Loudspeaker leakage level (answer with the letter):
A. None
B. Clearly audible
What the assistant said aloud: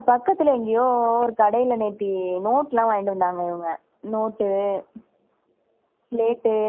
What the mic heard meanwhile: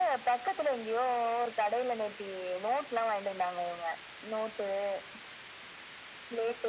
B